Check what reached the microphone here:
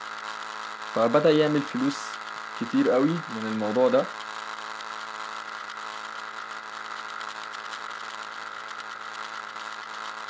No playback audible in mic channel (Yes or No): Yes